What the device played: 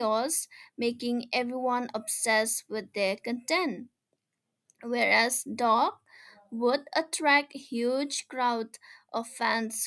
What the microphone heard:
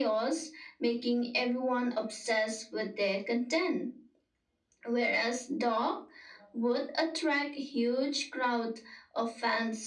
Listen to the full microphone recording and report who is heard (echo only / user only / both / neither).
echo only